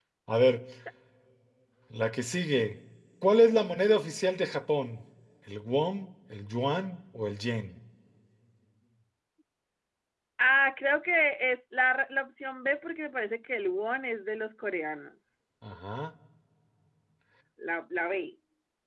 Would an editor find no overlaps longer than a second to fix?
Yes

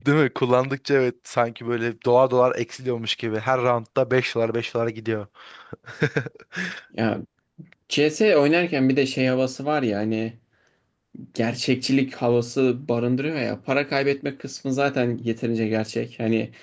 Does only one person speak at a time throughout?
Yes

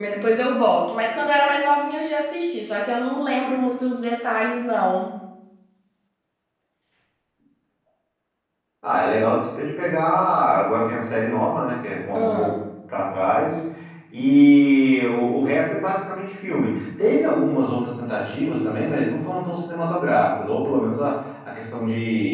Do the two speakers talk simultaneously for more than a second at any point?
No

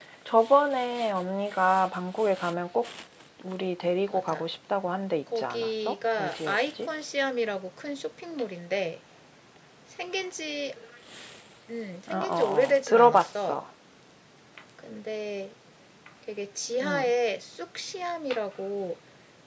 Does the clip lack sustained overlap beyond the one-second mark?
No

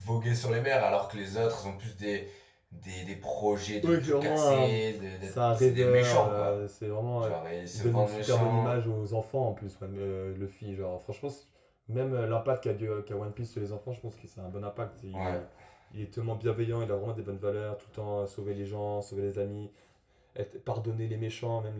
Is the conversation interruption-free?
No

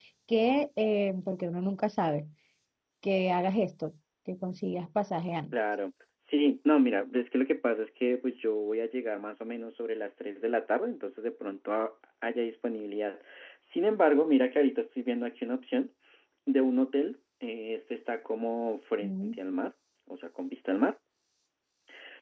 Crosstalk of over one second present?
No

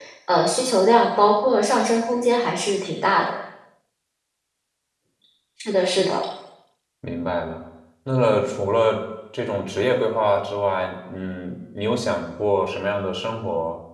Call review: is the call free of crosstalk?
Yes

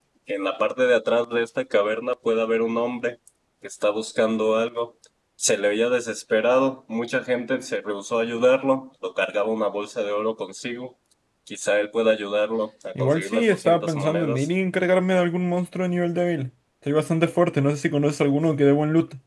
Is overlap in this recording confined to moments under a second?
No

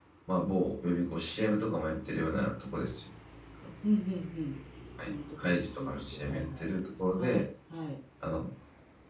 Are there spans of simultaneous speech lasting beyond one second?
Yes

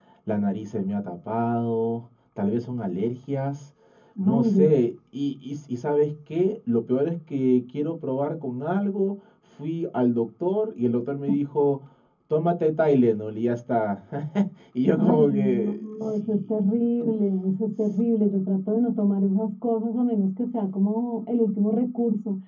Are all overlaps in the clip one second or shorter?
No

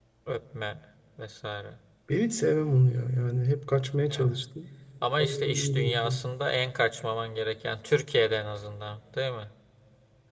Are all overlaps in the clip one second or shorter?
No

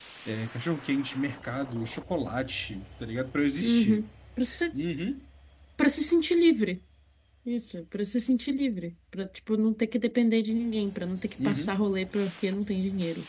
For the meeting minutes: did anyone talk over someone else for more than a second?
No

